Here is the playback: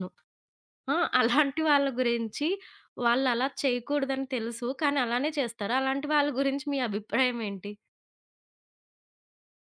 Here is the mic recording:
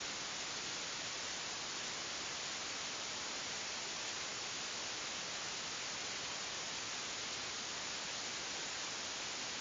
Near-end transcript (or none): none